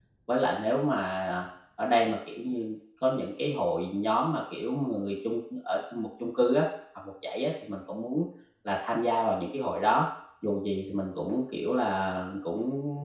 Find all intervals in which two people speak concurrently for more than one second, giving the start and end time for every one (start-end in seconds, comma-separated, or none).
none